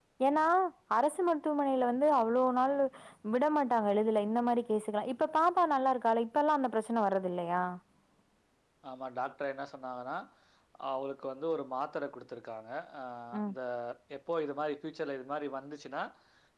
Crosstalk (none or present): none